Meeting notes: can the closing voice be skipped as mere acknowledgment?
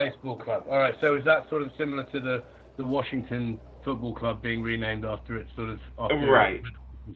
No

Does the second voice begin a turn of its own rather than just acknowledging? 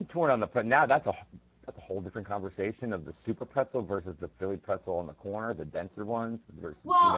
Yes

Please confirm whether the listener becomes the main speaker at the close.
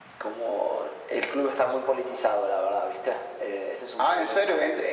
Yes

